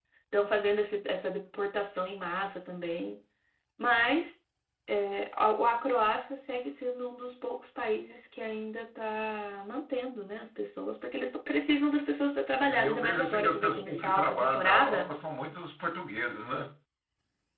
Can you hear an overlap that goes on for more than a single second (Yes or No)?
Yes